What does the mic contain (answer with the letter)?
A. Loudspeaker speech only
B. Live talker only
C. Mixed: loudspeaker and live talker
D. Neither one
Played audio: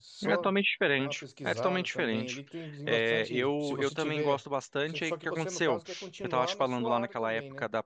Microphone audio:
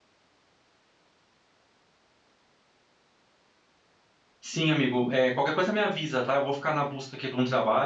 B